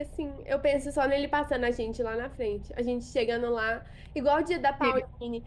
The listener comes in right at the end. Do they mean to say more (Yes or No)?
No